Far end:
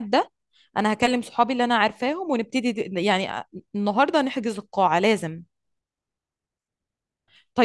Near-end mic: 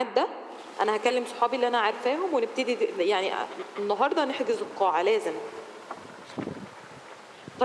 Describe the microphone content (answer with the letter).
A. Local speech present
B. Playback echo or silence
B